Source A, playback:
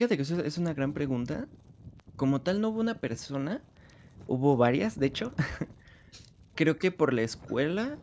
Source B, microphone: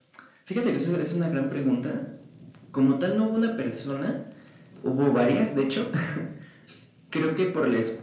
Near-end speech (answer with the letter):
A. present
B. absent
B